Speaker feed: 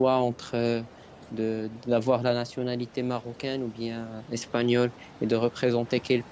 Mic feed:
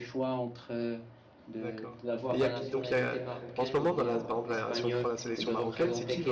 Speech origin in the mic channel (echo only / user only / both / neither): both